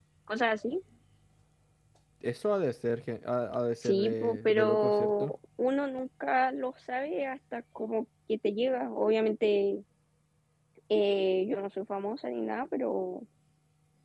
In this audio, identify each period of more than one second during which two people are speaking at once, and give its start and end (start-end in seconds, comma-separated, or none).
3.8-5.3